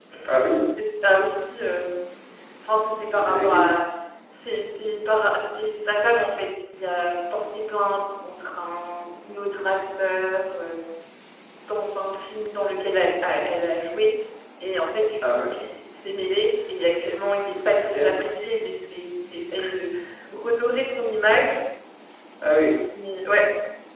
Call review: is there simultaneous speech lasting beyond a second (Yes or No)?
No